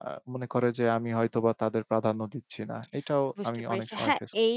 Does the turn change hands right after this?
Yes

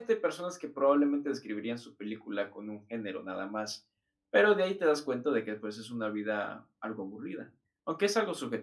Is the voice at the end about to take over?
No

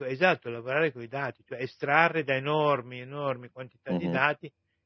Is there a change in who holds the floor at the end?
No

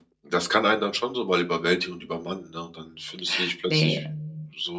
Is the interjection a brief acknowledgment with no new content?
Yes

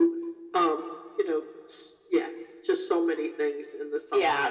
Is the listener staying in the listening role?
No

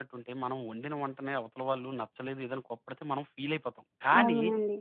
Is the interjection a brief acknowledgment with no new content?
Yes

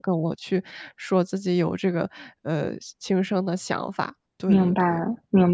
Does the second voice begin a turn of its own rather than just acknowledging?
Yes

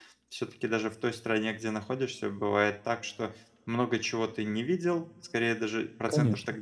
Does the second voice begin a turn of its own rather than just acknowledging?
No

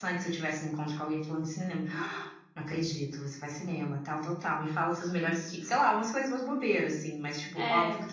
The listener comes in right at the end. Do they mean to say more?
No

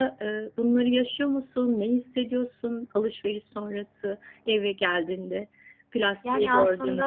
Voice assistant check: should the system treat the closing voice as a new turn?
Yes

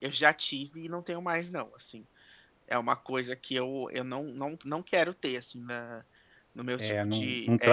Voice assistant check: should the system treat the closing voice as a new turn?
Yes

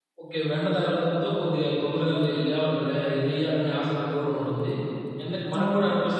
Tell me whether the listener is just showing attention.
Yes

